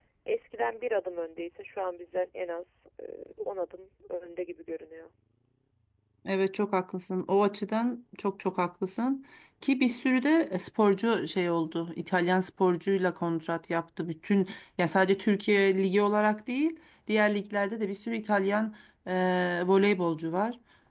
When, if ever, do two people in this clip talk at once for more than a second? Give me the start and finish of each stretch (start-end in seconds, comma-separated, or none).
none